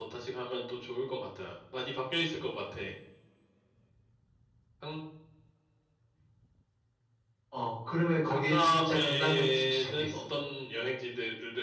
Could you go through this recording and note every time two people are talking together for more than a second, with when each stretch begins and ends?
8.3-10.2

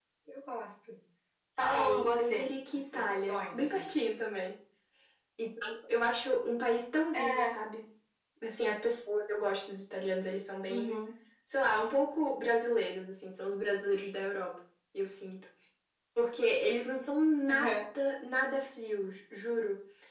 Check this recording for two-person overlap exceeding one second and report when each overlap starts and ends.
1.6-3.9

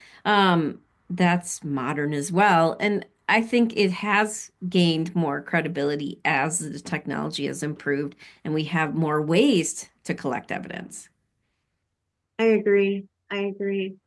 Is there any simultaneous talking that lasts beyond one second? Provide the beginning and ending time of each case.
none

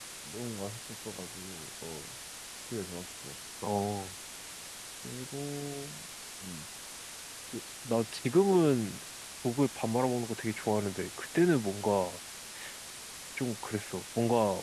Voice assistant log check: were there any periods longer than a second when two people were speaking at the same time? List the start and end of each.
none

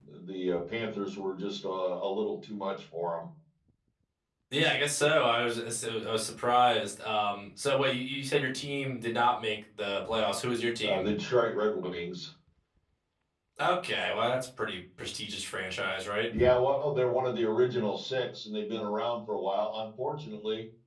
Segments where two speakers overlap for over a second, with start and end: none

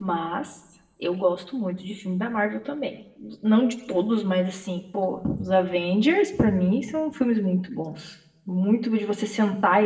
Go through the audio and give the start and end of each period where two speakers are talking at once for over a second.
none

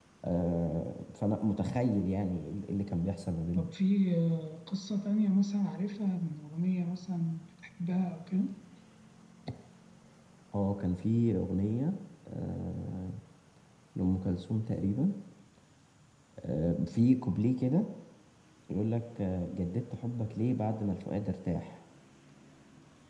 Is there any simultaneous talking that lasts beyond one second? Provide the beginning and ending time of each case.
none

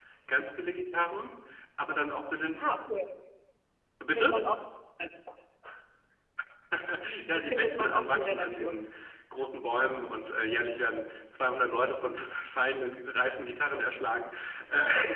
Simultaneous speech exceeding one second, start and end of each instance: 7.3-8.8

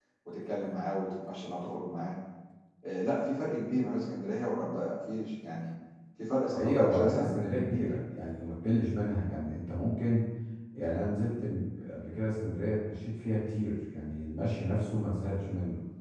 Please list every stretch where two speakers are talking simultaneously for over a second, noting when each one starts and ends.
6.6-8.0

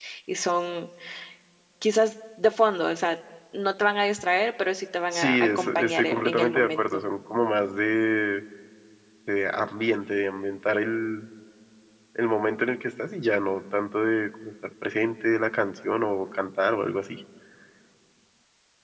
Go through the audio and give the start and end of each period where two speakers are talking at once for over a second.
5.1-7.0

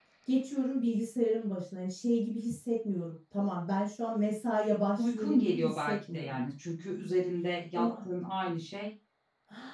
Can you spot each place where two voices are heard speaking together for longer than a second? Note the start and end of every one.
5.0-6.4

